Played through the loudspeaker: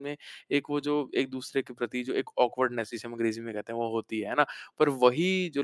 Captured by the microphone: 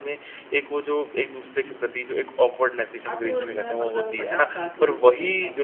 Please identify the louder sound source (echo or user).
echo